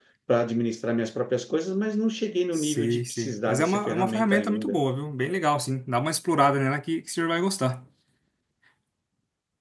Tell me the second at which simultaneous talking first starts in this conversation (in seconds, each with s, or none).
2.5 s